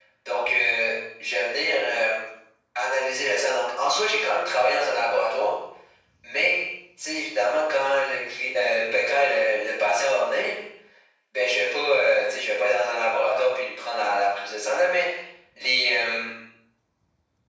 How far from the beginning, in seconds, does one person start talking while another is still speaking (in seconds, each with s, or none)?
none